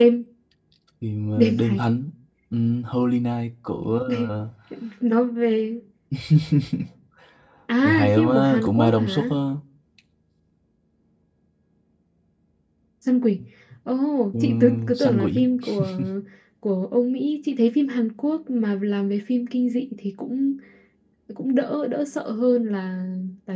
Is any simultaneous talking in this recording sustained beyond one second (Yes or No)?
Yes